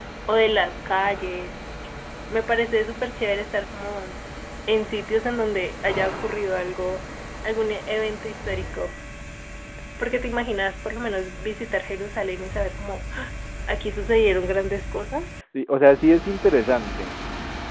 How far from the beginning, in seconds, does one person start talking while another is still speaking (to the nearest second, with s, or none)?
none